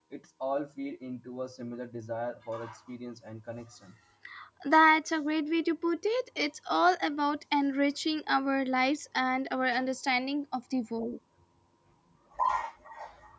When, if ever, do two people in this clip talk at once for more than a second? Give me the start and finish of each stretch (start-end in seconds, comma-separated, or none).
none